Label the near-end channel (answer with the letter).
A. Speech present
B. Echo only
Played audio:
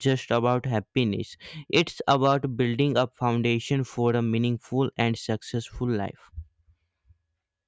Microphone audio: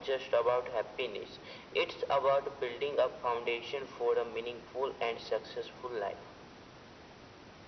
B